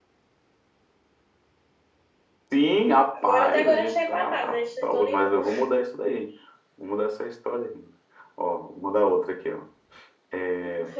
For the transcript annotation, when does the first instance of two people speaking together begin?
3 s

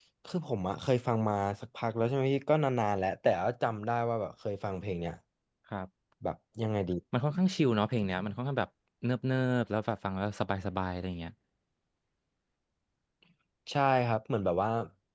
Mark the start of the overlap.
none

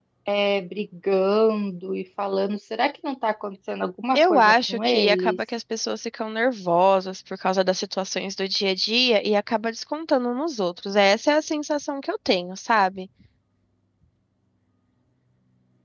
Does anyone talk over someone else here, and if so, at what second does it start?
4 s

